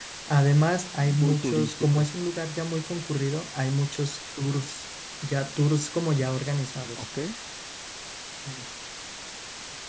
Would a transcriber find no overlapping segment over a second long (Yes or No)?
No